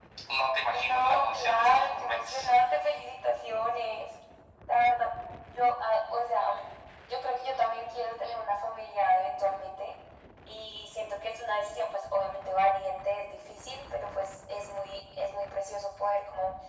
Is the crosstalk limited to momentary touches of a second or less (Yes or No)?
No